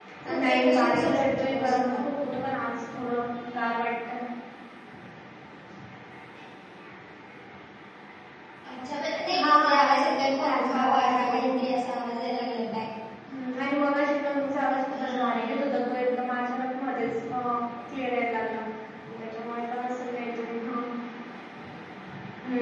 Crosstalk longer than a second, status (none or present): present